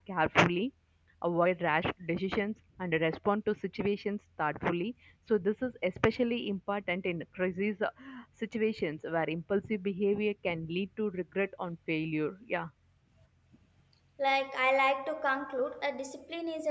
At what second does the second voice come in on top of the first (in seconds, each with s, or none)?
none